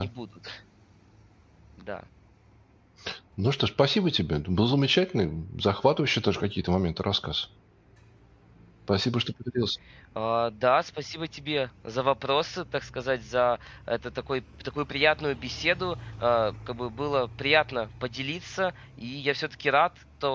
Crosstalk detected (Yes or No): No